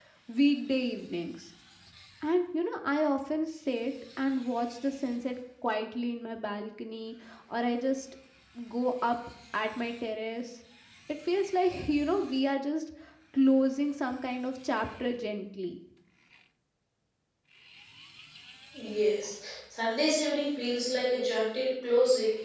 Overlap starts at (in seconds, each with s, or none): none